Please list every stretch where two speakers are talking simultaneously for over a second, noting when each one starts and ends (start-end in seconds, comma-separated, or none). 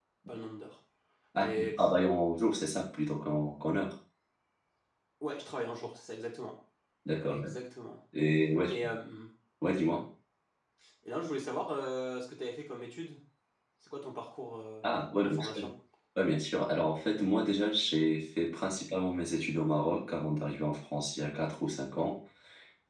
none